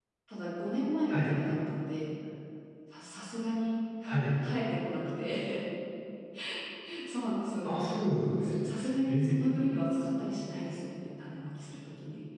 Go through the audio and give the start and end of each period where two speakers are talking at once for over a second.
none

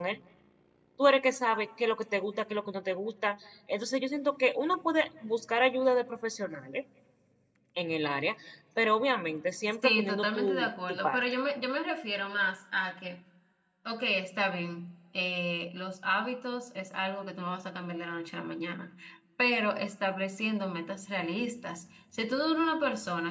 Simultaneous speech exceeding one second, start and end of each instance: 9.8-11.2

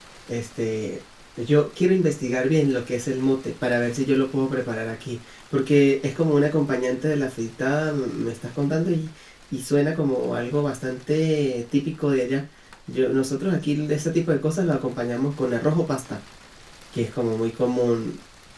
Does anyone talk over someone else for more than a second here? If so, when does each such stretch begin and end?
none

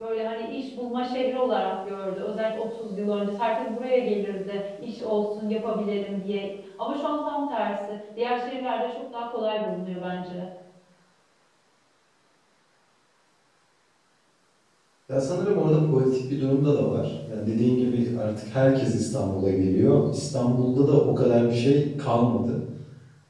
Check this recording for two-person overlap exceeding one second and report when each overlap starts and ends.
none

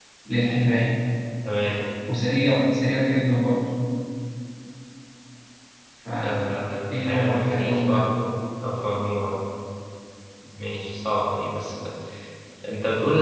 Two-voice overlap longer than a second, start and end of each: 6.2-8.1

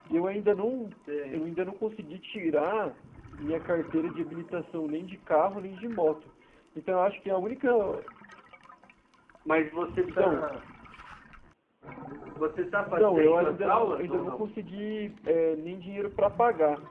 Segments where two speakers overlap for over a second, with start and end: 12.9-14.4

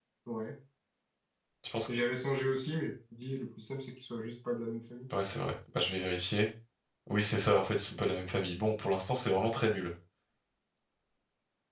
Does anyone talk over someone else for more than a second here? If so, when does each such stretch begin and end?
none

